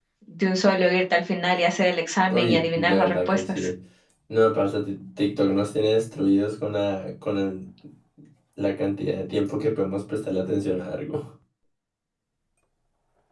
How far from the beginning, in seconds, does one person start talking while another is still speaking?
2.3 s

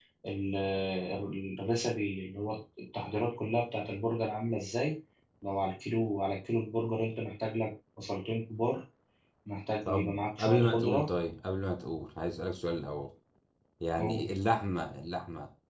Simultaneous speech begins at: 9.9 s

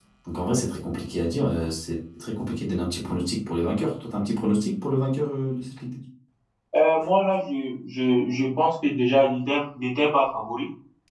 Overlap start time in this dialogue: none

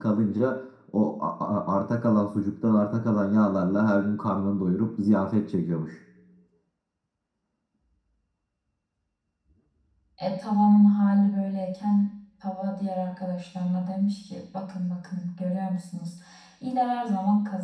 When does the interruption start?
none

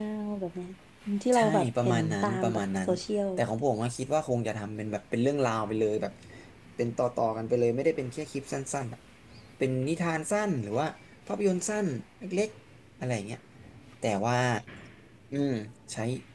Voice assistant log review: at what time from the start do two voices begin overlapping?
1.3 s

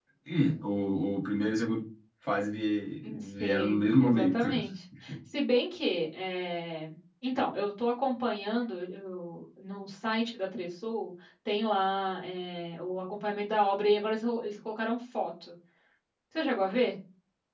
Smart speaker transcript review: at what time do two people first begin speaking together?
3.0 s

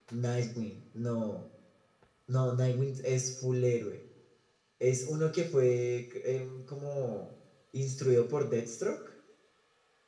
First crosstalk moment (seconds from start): none

